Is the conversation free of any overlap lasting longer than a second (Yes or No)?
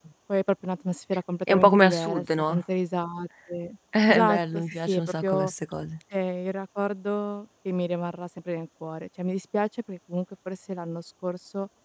No